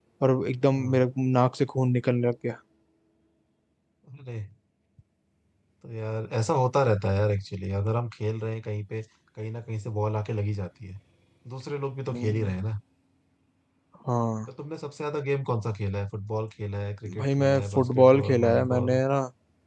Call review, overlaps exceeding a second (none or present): present